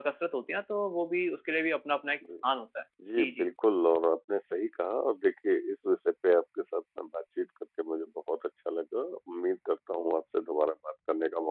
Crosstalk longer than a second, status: none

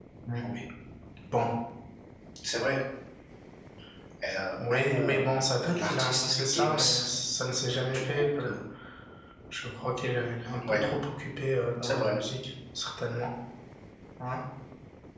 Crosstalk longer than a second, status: present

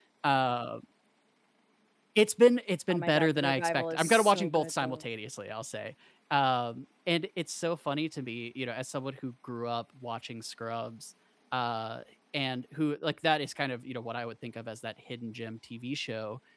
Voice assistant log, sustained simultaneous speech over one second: present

